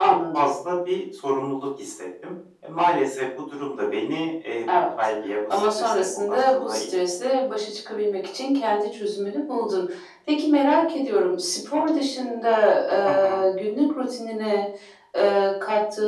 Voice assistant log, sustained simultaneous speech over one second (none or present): present